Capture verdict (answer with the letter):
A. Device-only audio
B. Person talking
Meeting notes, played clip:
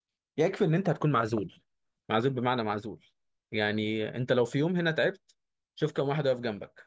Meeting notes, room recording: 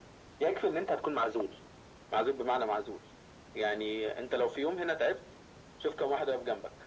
A